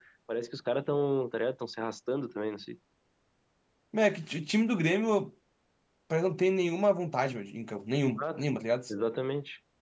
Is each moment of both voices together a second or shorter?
Yes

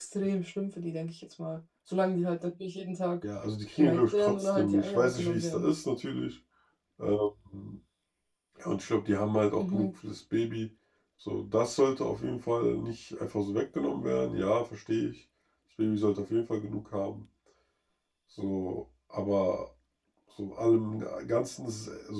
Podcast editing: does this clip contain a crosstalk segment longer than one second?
Yes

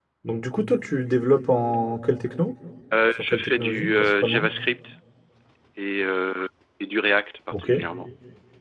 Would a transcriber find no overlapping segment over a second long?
No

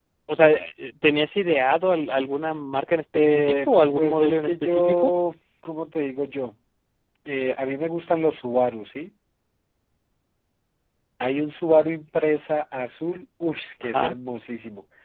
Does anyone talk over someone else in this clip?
Yes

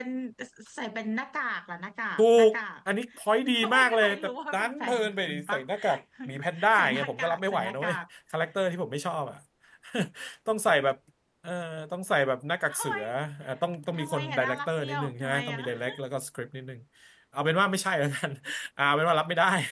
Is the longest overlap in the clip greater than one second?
Yes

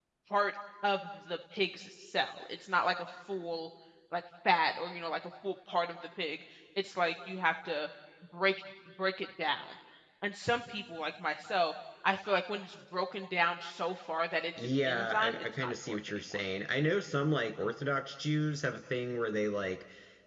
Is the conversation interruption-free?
No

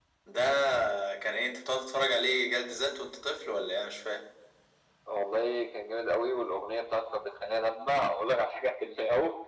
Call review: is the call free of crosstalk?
Yes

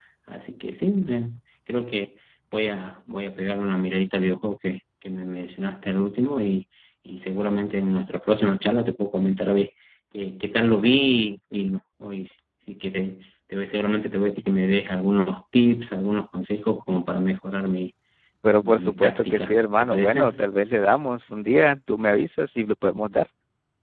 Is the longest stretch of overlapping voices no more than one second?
No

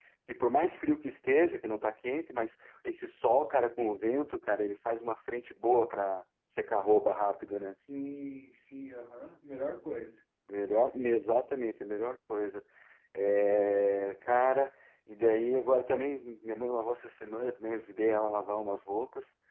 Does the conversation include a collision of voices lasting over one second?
No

